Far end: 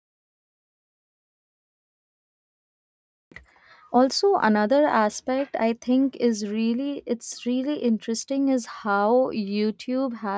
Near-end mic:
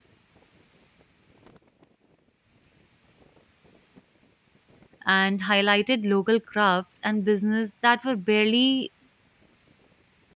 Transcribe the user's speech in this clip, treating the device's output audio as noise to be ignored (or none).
and highlighted local crafts and business that were barely